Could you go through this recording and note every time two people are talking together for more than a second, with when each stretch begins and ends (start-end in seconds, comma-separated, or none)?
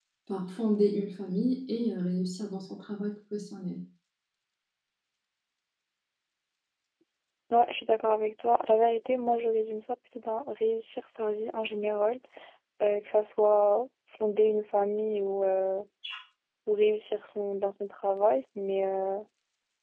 none